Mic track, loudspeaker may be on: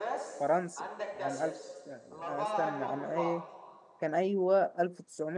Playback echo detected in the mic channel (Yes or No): Yes